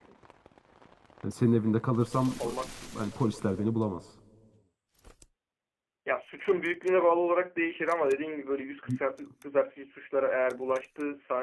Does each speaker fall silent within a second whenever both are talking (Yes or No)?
Yes